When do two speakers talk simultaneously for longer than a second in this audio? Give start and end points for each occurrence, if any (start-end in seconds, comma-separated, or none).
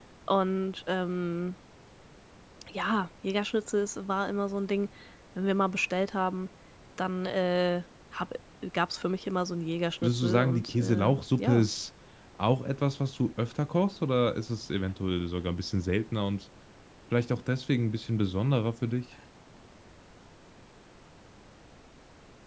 10.0-11.7